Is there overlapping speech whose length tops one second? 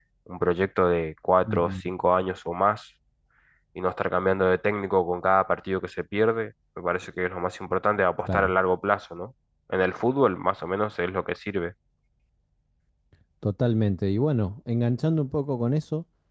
No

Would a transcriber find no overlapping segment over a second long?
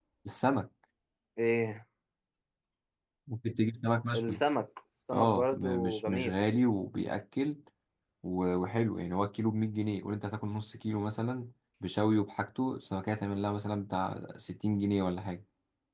No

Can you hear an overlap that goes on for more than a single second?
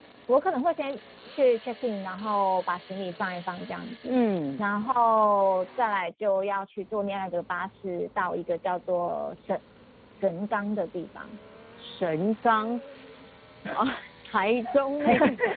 No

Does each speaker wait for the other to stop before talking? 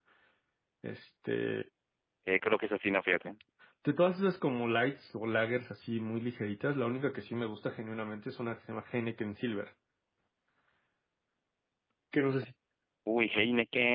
Yes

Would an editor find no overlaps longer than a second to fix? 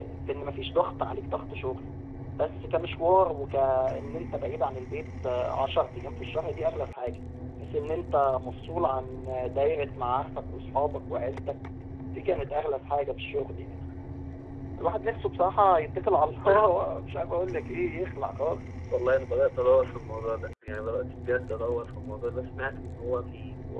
Yes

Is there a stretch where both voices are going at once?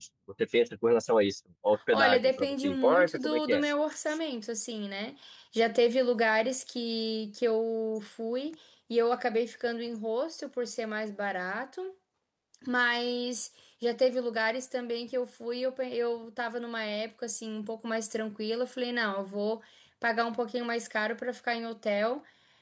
Yes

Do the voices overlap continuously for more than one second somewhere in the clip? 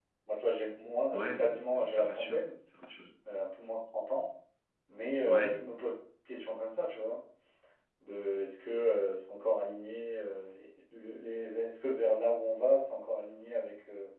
Yes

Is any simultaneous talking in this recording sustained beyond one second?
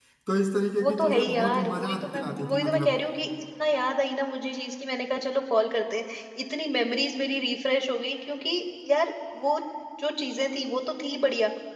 Yes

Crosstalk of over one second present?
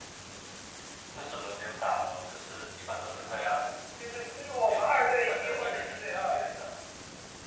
Yes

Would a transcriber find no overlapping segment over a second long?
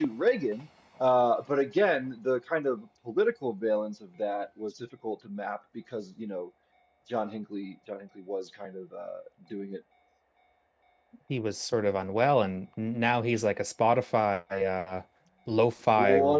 Yes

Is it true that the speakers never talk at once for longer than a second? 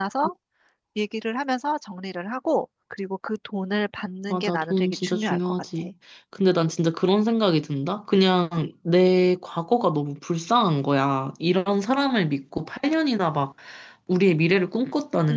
No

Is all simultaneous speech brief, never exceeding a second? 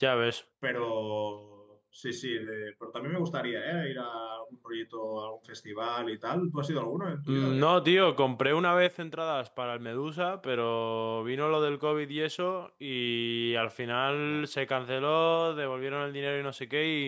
Yes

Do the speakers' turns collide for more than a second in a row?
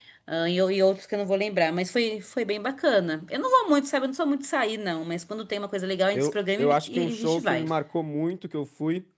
Yes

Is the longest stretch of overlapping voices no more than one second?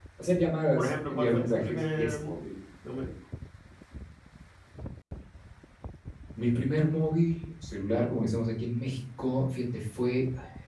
No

